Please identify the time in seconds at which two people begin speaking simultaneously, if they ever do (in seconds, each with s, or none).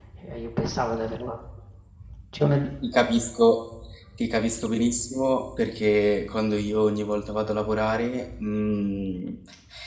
none